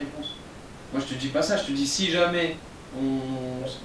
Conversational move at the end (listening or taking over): taking over